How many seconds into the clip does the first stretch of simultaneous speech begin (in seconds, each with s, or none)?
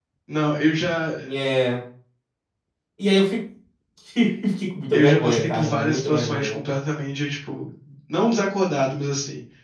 4.9 s